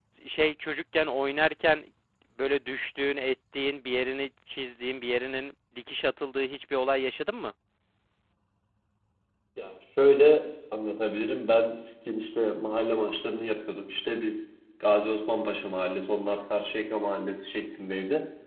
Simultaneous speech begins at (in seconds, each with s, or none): none